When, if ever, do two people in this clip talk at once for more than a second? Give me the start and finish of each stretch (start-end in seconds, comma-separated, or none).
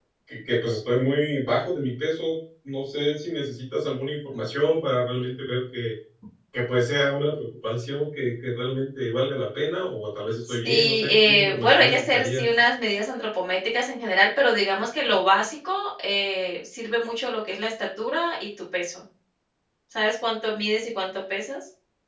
10.5-12.4